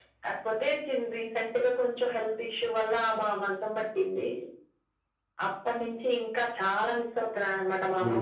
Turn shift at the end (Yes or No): Yes